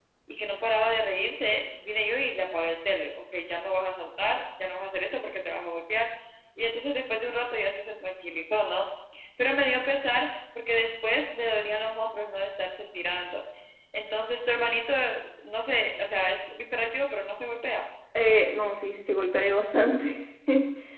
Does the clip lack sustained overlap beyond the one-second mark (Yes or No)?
Yes